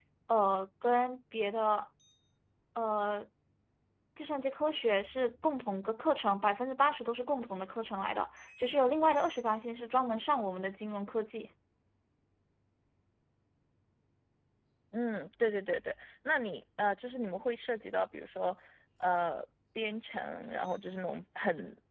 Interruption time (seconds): none

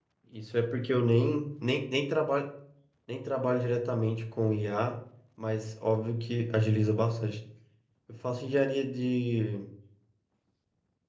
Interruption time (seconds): none

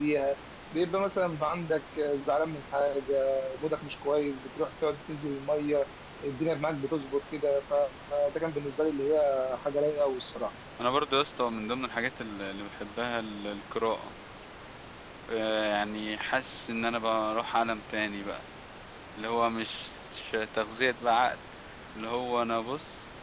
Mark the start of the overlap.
none

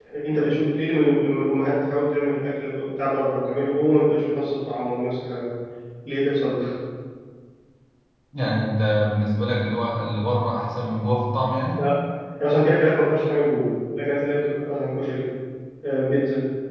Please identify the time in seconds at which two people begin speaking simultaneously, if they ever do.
none

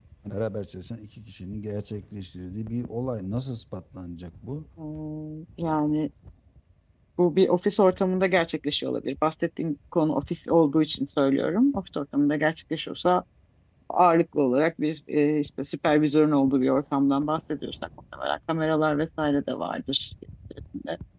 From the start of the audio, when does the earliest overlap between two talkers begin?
none

